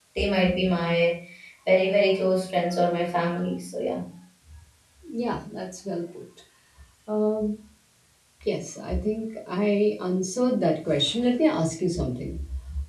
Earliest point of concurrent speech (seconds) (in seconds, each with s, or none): none